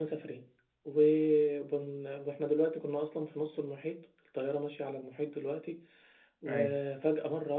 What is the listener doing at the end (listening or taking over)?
listening